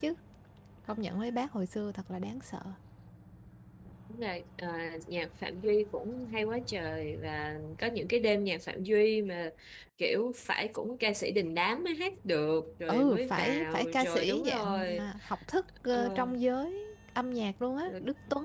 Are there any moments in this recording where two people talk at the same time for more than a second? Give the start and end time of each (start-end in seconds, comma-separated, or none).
12.9-15.1